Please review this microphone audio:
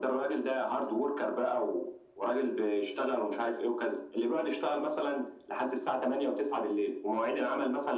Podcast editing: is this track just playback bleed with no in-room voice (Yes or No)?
Yes